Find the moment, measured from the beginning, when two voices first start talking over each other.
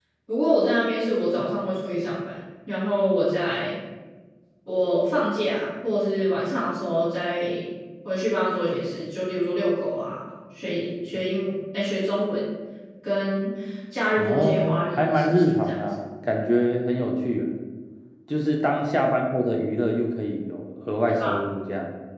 14 s

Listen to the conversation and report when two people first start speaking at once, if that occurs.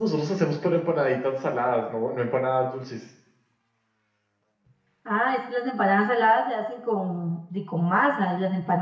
none

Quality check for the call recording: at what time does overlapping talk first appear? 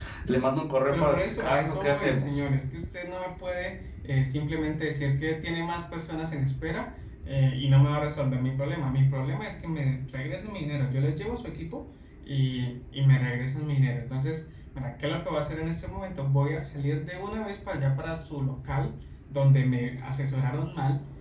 1 s

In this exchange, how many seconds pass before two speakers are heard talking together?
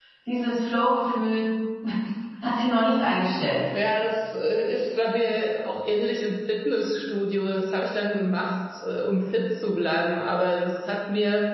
none

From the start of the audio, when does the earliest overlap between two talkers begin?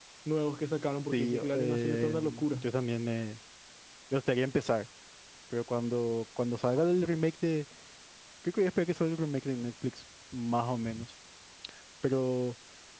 1 s

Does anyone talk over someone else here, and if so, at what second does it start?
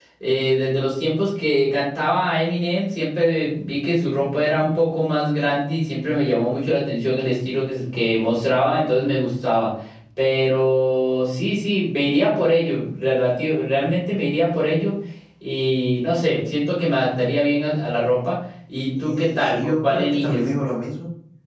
19 s

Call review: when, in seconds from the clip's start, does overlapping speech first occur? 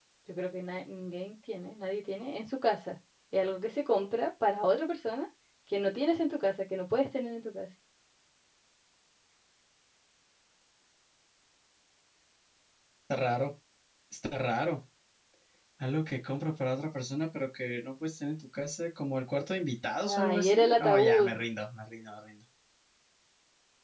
20 s

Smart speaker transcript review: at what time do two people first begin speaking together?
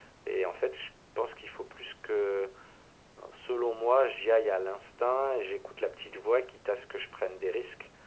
none

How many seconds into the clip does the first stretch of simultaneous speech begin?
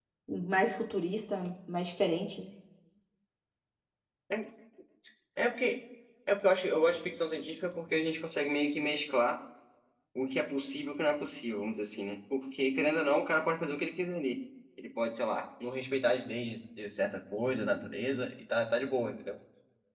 none

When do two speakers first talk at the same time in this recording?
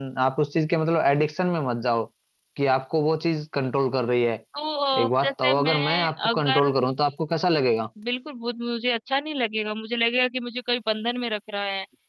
5 s

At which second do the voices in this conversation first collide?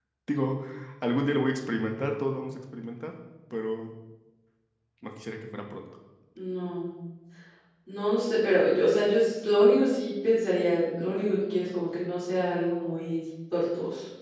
none

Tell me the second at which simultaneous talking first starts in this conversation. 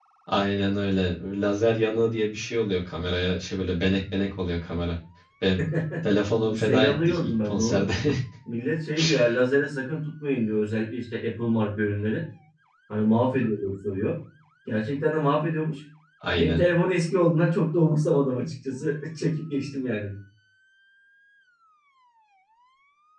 6 s

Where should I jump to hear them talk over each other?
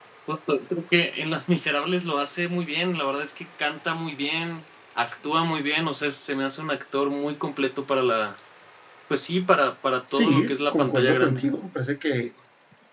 10 s

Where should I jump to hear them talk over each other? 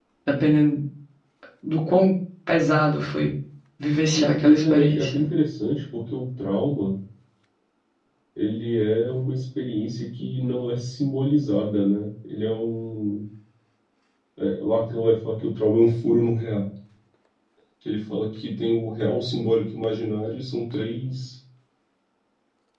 4 s

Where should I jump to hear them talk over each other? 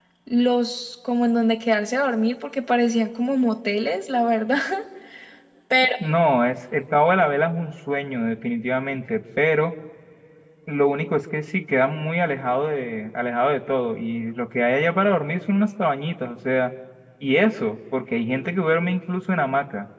none

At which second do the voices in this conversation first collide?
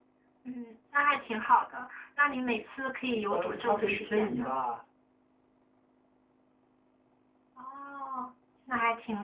3 s

